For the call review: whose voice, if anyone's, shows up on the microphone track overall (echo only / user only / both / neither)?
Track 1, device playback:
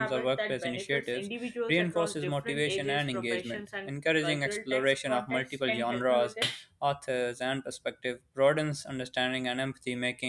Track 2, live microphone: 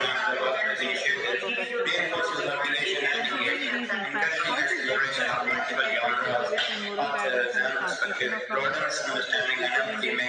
both